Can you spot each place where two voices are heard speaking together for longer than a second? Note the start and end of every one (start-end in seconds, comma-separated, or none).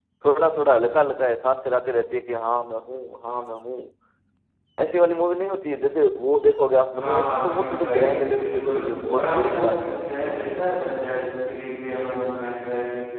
7.0-10.0